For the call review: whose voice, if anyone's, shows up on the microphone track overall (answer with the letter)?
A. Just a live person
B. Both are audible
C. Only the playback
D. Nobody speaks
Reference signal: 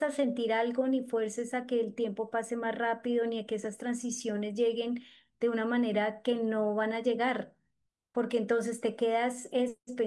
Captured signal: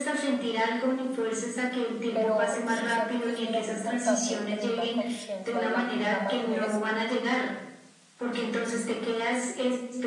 B